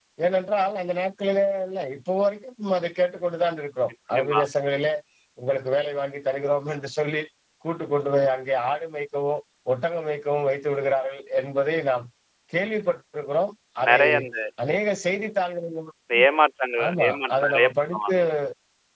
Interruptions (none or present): present